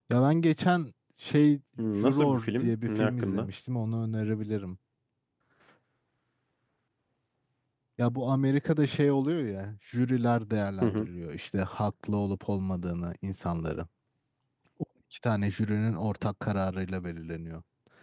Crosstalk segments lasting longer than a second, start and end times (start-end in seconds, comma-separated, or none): 2.0-3.5